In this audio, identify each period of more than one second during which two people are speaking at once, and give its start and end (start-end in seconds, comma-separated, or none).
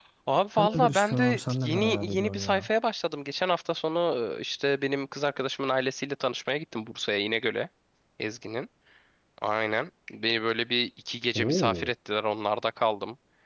0.6-2.7